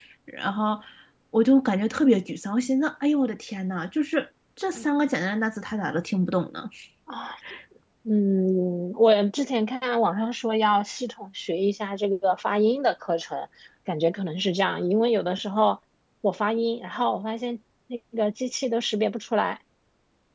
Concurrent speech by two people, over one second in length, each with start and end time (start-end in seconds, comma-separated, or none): none